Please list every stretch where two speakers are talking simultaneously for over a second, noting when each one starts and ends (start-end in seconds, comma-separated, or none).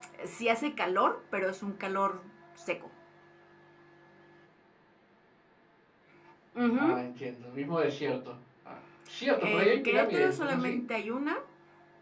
9.4-10.8